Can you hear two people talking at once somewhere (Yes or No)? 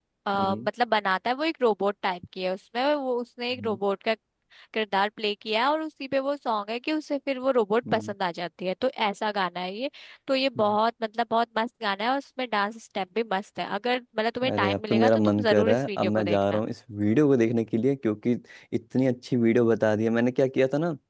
Yes